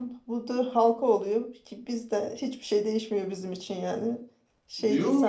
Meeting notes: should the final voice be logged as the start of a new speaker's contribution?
Yes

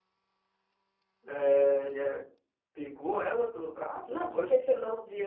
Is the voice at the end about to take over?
Yes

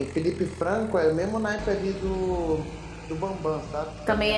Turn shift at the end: Yes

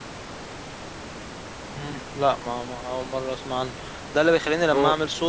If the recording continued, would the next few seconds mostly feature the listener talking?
No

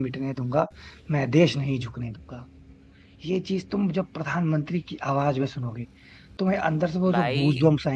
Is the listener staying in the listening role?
No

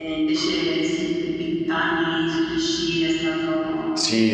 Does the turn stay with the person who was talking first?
No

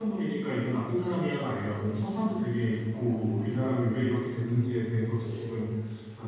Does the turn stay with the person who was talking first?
Yes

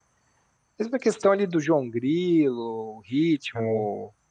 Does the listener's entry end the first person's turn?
No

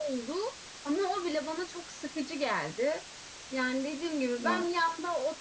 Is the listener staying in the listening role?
Yes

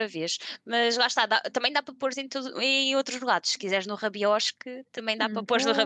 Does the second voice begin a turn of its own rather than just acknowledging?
Yes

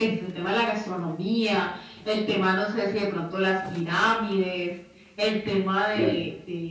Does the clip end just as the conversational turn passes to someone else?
No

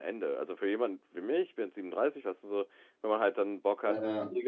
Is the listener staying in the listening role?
Yes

